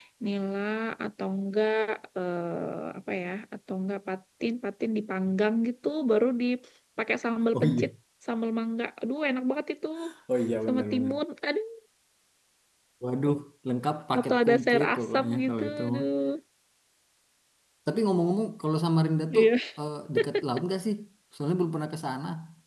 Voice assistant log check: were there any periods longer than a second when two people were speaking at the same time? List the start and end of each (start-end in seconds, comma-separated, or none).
14.2-16.1